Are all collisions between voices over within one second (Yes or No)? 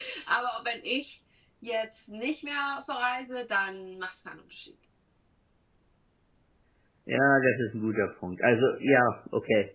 Yes